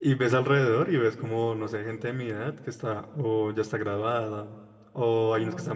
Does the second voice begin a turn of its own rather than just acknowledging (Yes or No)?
No